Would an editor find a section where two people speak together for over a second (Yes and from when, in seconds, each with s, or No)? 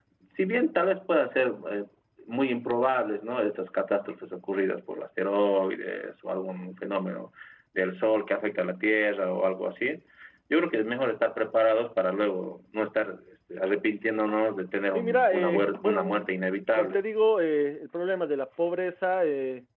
Yes, from 14.9 s